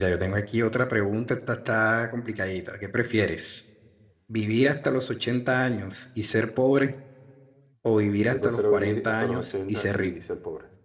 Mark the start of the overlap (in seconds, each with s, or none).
8.3 s